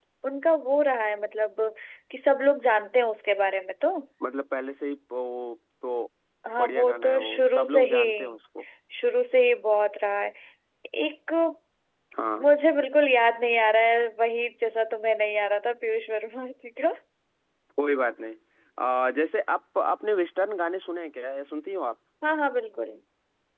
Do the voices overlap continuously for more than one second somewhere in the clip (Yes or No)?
Yes